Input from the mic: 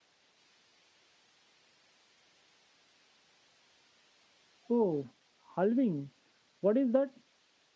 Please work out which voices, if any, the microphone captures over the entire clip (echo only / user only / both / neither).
user only